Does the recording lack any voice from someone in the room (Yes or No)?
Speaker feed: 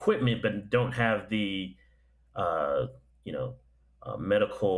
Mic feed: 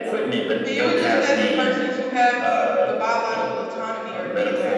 No